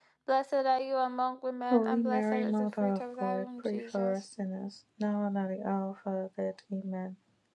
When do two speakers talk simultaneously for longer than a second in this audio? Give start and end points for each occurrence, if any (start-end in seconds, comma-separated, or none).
1.7-4.2